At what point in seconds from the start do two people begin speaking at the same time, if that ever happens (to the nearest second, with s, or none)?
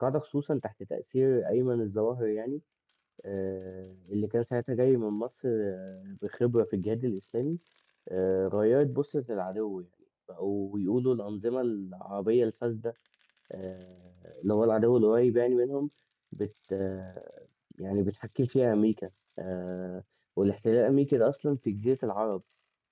none